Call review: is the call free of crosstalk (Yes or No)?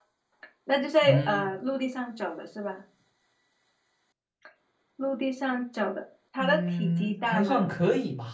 No